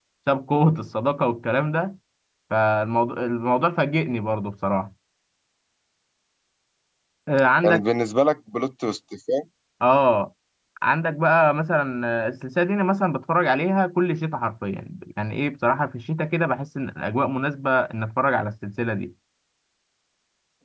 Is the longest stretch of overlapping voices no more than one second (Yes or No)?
Yes